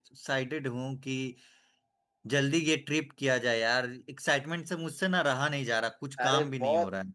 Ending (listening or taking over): taking over